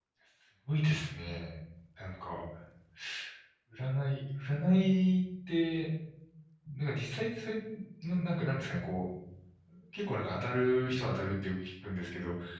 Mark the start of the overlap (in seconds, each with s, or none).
none